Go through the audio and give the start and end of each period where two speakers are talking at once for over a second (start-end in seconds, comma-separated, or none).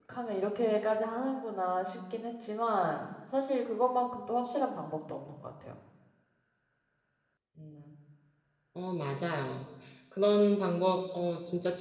none